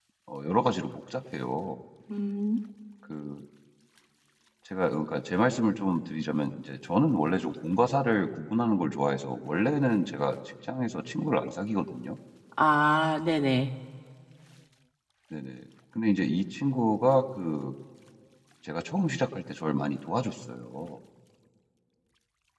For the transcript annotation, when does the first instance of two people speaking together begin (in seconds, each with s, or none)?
none